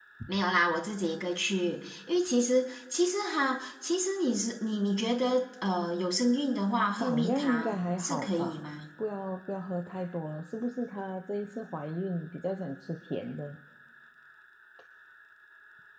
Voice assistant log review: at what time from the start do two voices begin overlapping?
6.9 s

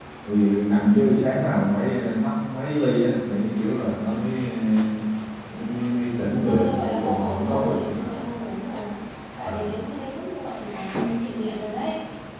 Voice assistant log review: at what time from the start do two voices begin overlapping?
6.3 s

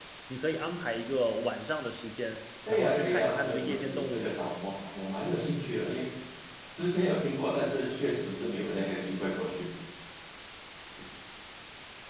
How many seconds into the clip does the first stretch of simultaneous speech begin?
2.6 s

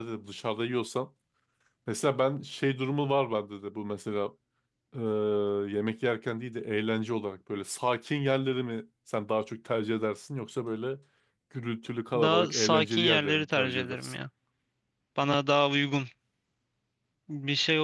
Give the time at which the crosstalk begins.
12.1 s

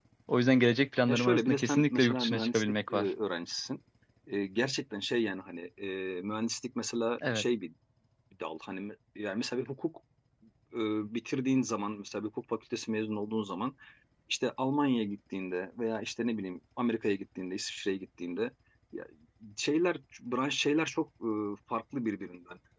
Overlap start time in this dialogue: 1.1 s

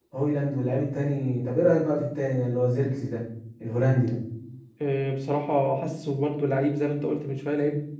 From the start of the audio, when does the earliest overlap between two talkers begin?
none

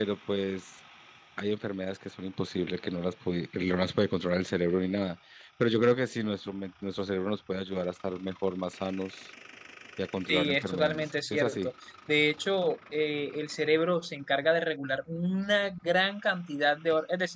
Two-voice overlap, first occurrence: 10.3 s

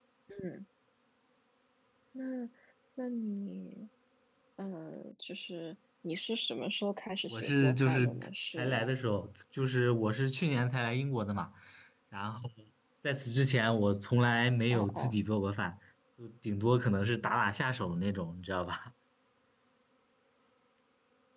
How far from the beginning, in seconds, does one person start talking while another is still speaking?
7.3 s

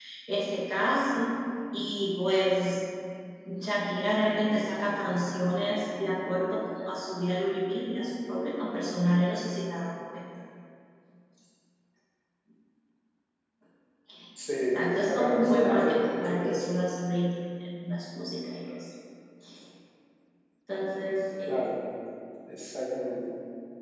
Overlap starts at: 14.6 s

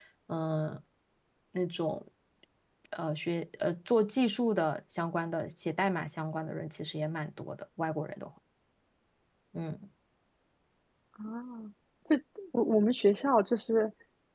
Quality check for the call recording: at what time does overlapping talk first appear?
none

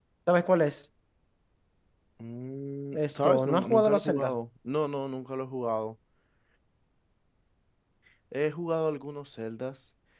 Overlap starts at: 2.9 s

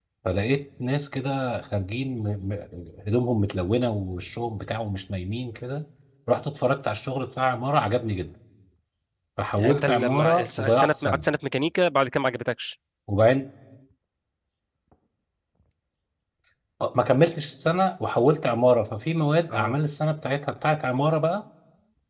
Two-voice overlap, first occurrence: 9.6 s

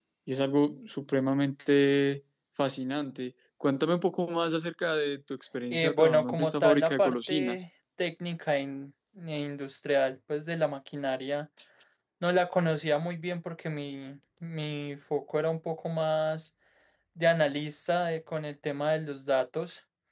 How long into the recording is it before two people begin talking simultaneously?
5.7 s

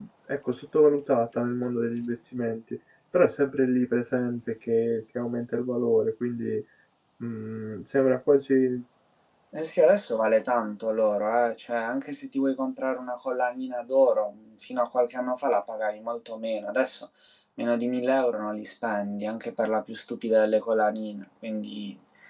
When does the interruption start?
none

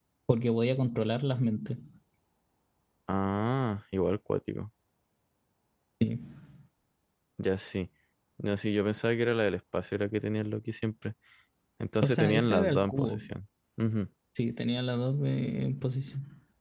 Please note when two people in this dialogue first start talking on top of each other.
12.0 s

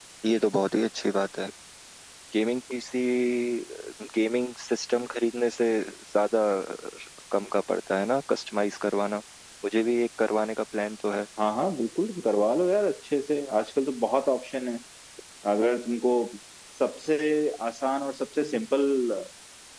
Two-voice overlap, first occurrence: none

